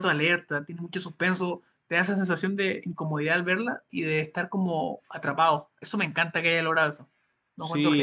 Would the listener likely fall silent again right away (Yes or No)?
No